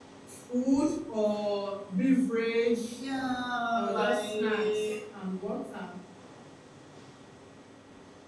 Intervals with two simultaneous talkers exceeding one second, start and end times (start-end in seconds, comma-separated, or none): 3.7-4.9